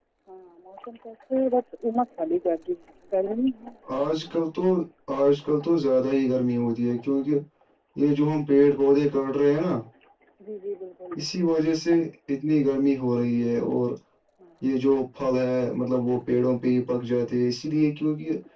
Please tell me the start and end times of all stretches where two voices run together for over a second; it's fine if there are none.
none

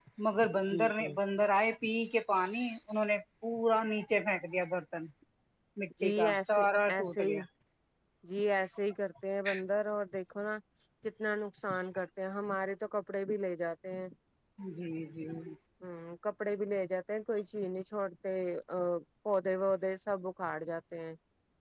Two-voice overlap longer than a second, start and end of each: 6.0-7.4

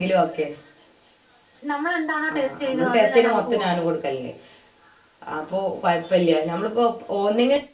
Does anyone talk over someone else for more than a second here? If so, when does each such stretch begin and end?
2.3-3.8

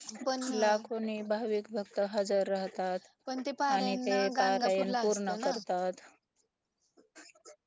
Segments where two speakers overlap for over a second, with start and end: 3.7-5.6

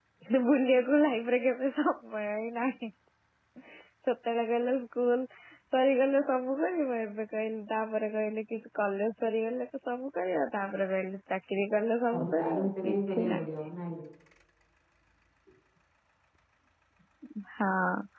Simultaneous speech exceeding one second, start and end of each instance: 12.1-13.5

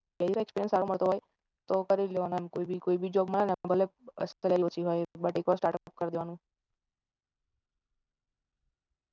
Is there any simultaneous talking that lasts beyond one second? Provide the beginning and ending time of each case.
none

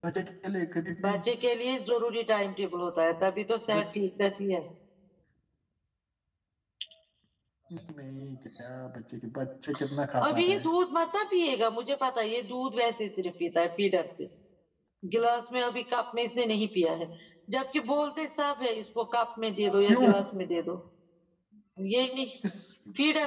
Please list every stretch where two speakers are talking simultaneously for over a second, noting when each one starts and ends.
none

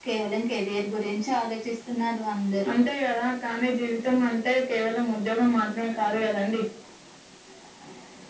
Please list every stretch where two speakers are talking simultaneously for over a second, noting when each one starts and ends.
none

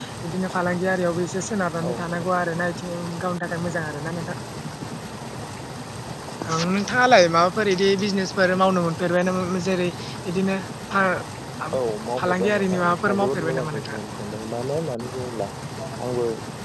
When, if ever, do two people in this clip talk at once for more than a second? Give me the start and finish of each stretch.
12.2-14.0

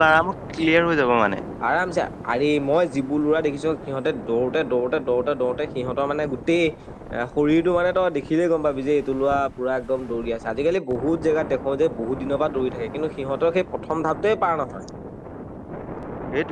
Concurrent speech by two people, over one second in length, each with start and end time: none

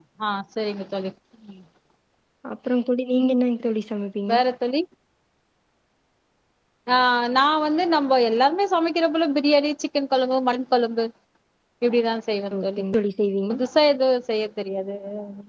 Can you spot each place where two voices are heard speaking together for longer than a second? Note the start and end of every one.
none

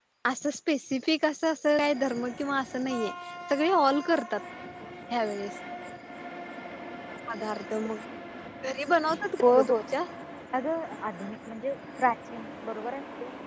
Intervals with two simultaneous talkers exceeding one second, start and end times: none

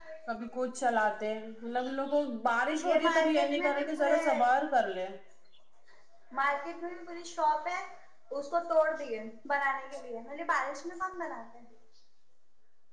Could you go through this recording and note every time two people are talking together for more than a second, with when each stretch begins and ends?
2.9-4.2

